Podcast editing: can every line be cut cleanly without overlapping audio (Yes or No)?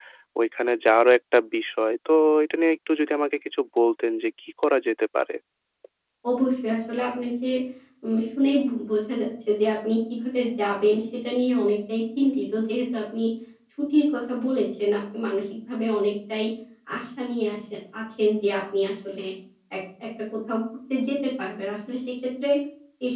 Yes